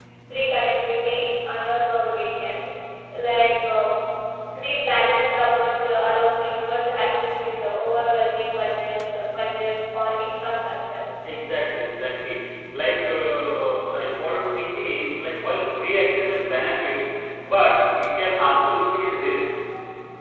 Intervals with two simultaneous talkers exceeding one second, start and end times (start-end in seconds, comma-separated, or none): none